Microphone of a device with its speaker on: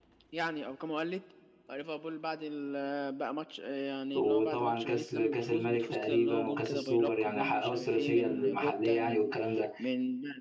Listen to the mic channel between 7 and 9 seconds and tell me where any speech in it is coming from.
both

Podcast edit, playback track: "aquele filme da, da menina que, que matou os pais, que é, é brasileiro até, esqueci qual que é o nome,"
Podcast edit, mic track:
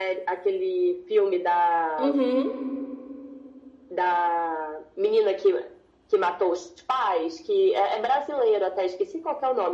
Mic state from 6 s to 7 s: echo only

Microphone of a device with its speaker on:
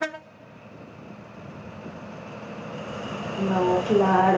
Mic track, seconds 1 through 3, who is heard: neither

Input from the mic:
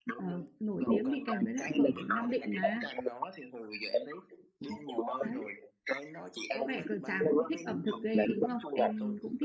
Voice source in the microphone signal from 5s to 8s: both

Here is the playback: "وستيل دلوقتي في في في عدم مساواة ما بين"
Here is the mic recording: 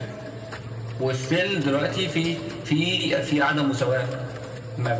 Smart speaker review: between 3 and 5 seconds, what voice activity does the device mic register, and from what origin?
echo only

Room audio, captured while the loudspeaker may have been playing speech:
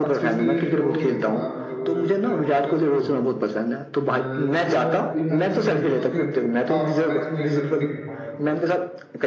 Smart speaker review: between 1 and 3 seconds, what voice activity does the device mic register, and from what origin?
both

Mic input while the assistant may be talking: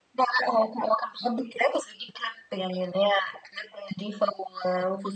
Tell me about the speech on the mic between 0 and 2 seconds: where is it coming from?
echo only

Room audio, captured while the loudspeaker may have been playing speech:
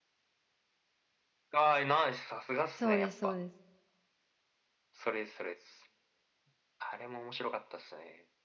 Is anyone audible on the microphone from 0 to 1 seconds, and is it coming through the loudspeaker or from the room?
neither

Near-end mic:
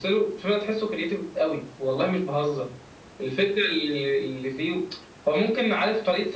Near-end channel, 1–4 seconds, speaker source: echo only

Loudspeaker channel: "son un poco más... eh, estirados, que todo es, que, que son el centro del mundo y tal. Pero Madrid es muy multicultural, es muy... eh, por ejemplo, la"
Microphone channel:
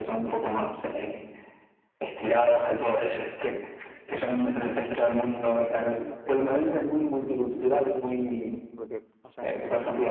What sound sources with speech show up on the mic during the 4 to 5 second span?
echo only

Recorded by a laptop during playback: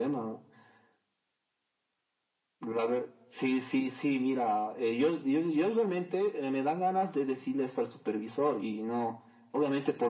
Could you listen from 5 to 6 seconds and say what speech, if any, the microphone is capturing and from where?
echo only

